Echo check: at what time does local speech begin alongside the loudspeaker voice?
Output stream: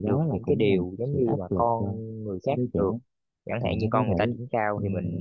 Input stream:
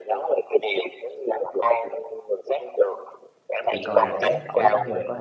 3.7 s

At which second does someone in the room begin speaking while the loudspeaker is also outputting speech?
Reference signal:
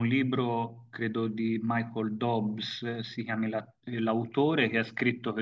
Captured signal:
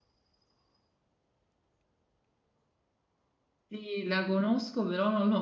3.7 s

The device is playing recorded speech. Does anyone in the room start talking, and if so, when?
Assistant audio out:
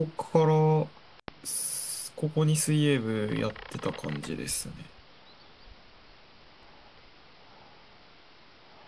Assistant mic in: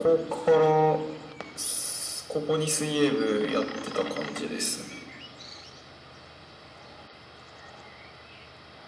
none

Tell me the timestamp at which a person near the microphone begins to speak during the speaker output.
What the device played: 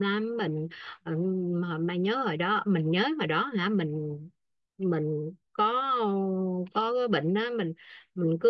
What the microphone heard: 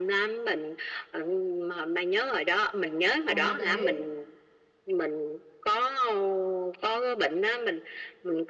3.3 s

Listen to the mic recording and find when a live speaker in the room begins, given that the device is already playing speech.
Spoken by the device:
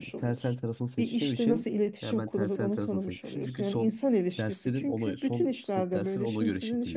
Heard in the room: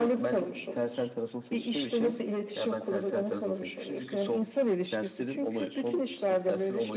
none

